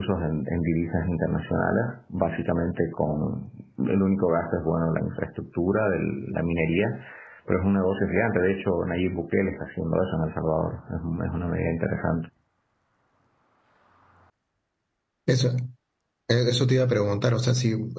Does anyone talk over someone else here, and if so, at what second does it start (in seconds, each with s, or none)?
none